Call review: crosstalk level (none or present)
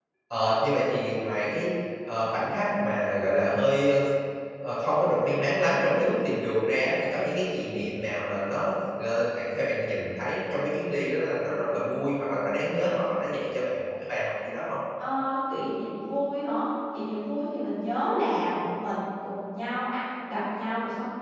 none